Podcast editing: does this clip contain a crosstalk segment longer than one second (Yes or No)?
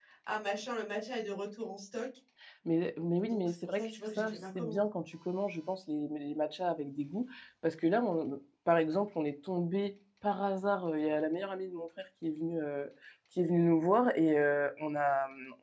Yes